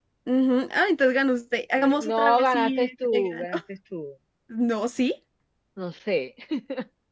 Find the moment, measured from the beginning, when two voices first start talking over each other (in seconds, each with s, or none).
1.8 s